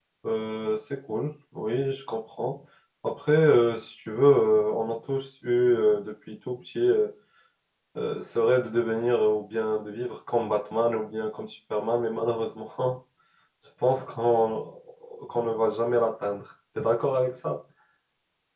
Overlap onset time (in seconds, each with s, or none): none